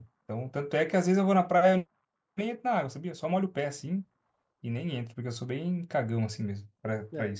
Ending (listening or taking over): taking over